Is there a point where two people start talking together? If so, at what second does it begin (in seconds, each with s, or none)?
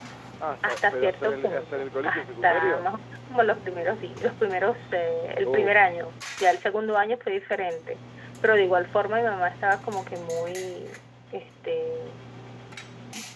0.6 s